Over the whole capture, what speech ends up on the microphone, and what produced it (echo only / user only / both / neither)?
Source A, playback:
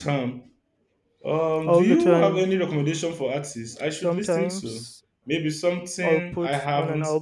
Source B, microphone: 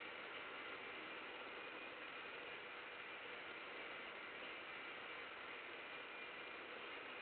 neither